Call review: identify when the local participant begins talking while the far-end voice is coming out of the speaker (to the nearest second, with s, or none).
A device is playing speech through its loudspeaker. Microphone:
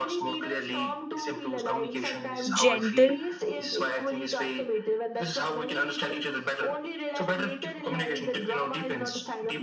3 s